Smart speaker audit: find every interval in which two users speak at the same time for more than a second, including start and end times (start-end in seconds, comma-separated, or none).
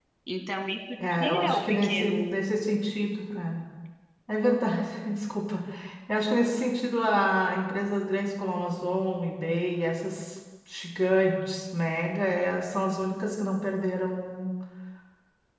1.1-2.4